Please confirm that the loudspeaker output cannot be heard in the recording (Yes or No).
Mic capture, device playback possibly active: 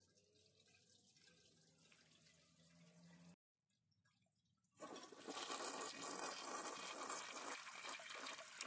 Yes